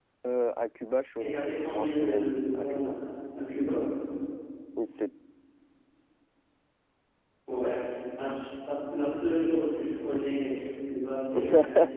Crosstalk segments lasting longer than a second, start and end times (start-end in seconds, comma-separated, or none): 1.2-3.0